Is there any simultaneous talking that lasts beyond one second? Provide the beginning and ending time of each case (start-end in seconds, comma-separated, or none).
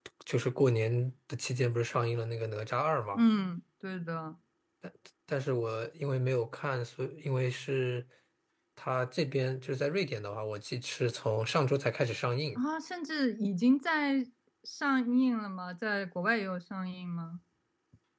none